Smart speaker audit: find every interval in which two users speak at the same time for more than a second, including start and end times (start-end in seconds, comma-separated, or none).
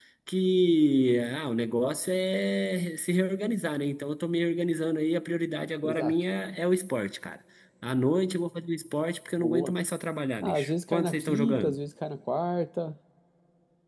10.4-11.8